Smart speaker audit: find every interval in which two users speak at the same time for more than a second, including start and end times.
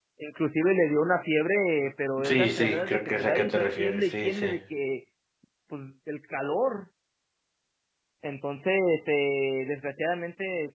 2.3-4.5

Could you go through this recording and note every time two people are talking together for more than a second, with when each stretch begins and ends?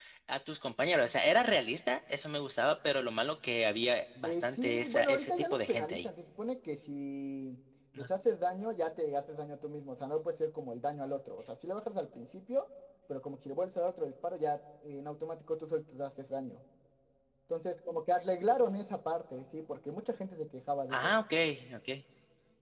4.2-6.1

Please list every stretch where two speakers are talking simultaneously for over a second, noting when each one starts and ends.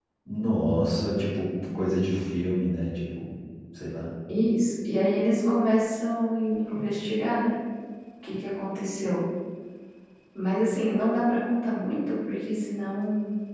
none

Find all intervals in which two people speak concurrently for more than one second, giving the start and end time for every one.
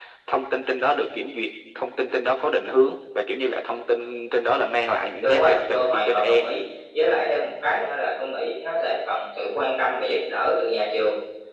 5.2-6.5

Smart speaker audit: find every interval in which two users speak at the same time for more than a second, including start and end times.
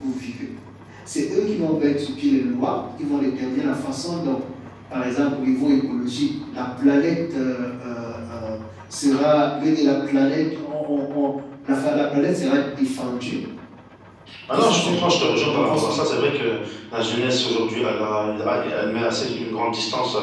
14.5-16.0

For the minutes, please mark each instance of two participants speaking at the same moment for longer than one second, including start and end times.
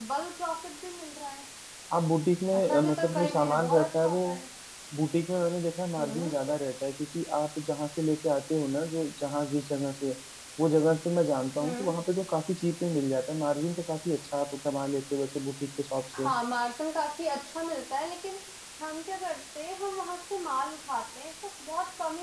2.5-4.2

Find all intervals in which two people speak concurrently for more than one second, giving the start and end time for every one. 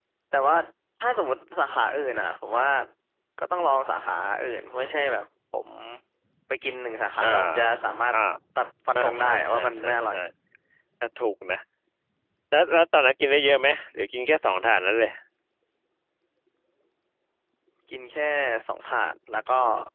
8.9-10.2

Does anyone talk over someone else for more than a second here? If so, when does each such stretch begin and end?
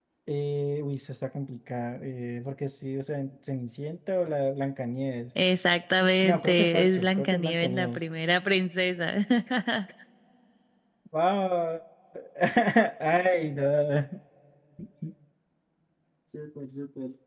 6.2-8.0

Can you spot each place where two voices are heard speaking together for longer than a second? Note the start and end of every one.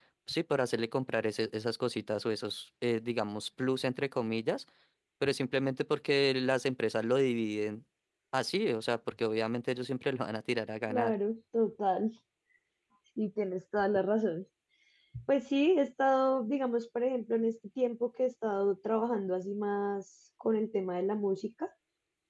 none

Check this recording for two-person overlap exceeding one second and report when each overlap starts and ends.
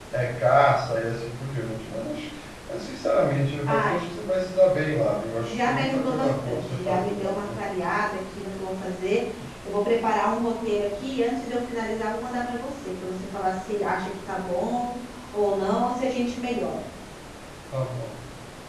5.4-7.6

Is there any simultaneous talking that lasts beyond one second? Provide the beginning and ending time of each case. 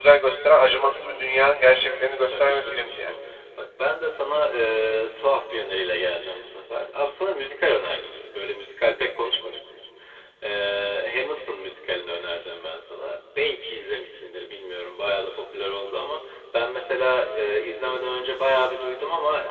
1.6-3.1

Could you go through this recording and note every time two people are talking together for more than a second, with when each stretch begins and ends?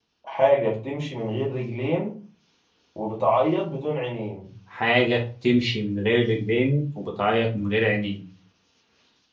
none

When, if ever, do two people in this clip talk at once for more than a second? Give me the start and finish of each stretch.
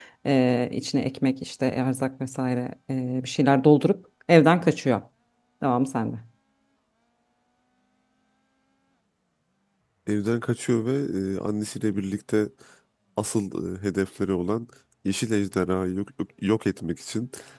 none

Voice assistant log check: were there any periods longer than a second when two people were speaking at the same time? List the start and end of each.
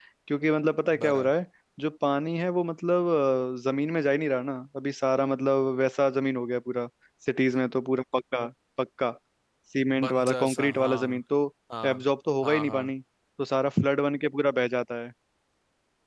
10.0-11.2

